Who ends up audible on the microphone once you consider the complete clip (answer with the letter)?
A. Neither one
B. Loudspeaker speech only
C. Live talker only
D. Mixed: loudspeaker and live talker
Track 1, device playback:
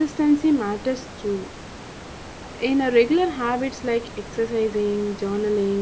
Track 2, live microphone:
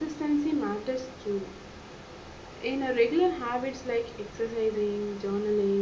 B